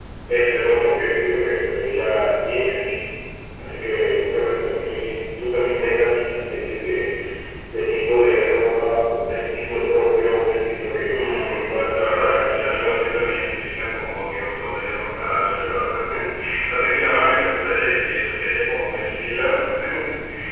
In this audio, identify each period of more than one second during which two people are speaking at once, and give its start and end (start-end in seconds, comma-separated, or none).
11.1-12.7